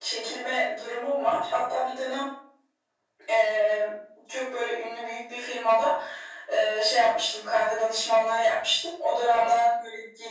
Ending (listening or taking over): listening